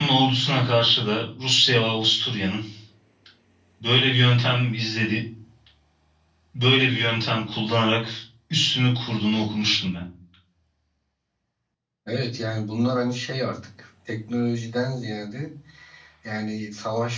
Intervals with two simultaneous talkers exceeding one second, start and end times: none

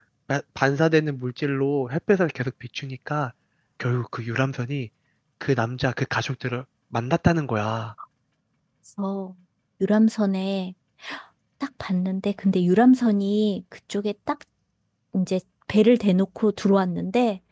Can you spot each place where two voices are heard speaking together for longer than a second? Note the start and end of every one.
none

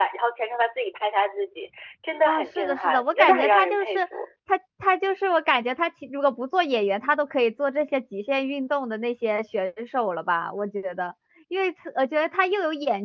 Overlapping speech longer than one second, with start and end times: 2.2-4.0

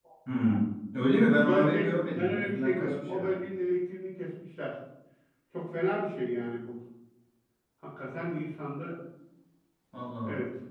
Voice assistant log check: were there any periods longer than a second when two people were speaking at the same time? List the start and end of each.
1.5-3.5

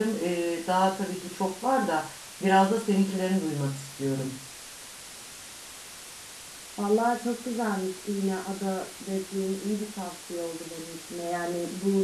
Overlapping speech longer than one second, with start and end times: none

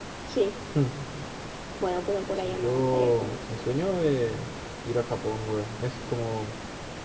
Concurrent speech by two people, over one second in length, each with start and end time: 2.4-3.6

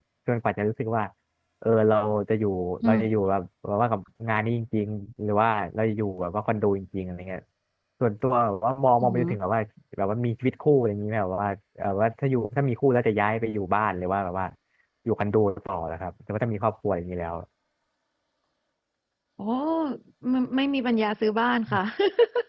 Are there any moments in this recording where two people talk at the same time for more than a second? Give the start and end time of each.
none

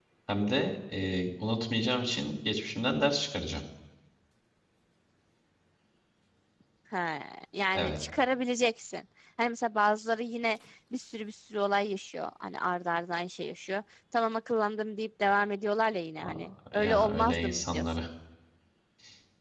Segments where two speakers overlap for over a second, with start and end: 16.7-18.0

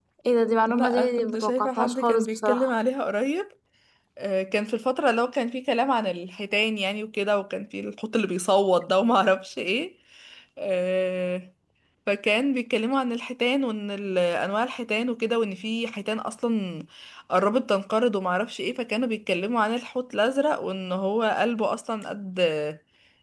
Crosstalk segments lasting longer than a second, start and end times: 0.7-2.7

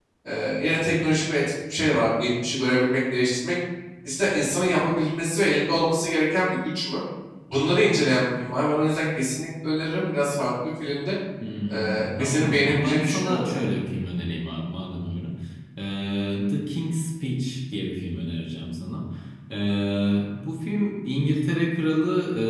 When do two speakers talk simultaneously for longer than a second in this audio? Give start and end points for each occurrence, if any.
11.7-13.6

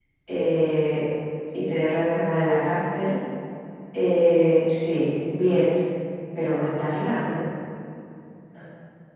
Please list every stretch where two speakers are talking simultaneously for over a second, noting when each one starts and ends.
none

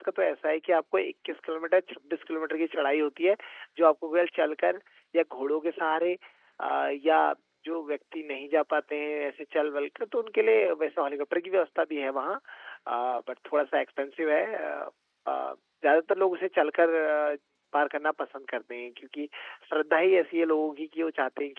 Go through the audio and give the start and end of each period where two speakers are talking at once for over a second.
none

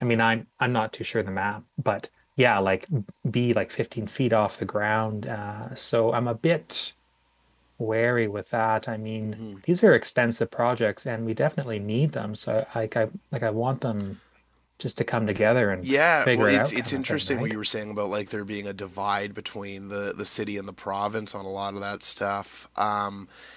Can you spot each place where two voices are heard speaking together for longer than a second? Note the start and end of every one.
15.8-17.6

